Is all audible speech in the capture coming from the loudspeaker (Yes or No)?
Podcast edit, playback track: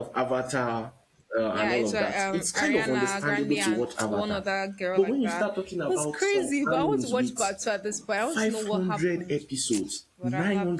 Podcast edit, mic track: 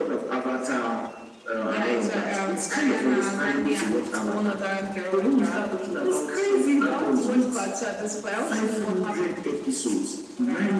Yes